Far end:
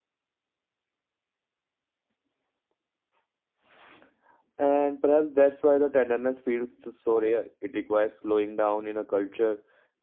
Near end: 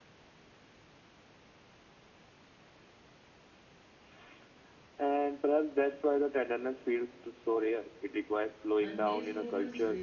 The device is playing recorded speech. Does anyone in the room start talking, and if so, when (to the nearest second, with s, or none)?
9 s